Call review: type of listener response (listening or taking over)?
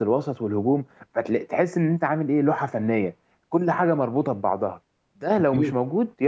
listening